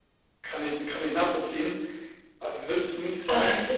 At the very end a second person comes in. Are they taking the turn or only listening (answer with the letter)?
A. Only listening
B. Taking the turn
A